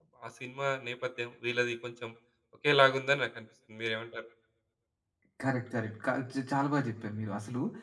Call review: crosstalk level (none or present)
none